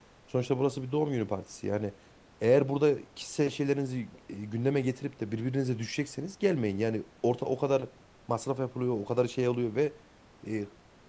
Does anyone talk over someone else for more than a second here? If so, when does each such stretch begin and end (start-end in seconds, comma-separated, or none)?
none